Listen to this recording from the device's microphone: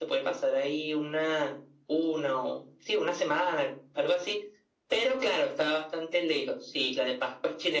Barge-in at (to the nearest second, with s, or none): none